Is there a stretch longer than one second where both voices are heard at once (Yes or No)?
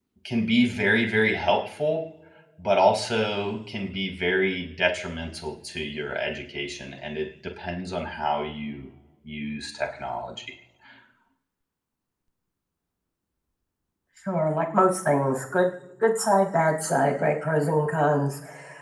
No